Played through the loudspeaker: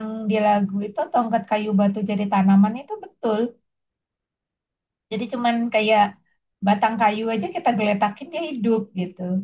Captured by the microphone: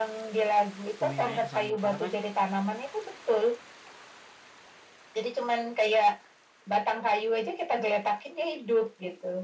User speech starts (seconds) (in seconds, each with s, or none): 1.0 s